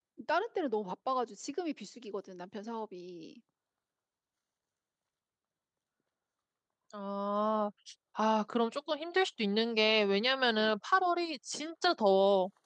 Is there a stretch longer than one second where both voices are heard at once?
No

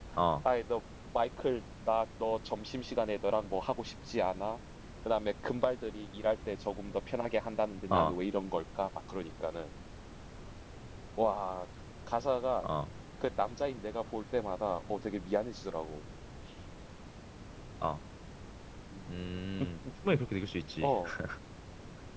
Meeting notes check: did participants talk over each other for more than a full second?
No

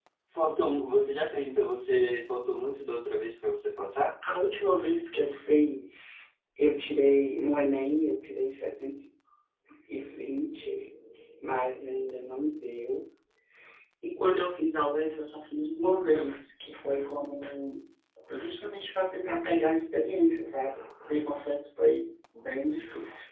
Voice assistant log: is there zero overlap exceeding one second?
Yes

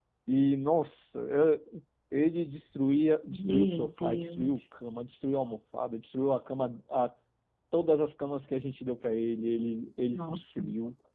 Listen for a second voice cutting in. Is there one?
Yes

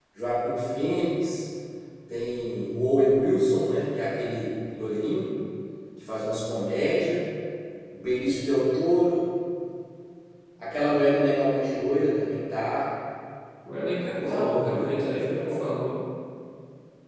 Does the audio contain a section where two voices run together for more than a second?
Yes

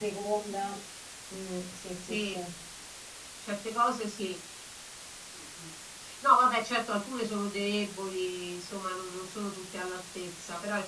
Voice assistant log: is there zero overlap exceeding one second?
Yes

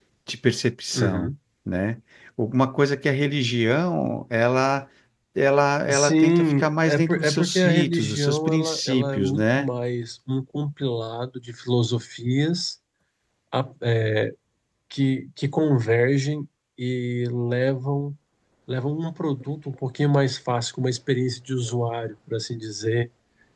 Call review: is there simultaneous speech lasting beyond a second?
Yes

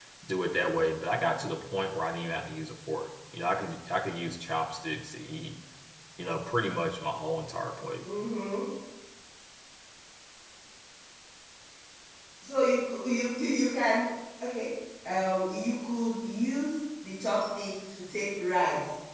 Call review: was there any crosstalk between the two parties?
No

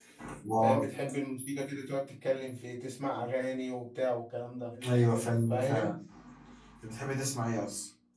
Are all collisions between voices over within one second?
Yes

